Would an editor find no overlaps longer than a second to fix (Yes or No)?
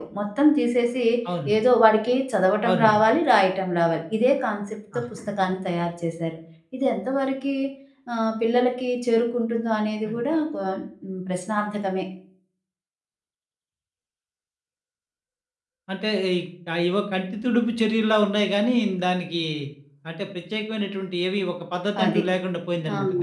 Yes